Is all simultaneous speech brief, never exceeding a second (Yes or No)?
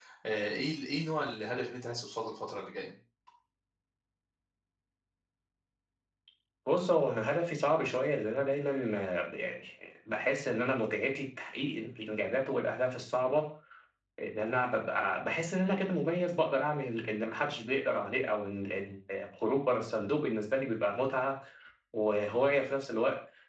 Yes